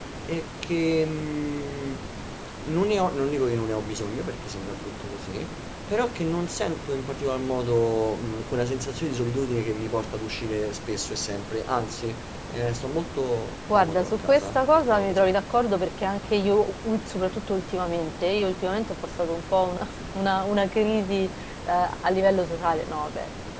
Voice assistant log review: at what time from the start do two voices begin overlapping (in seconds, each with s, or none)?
13.7 s